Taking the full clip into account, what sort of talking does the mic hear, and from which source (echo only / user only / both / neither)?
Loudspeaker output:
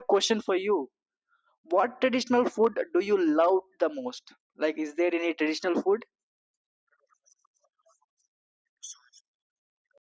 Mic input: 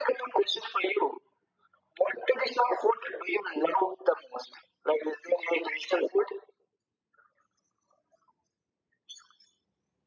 echo only